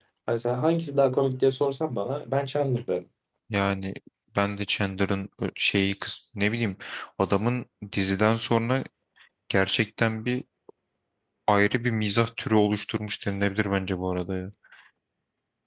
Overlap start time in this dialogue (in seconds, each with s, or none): none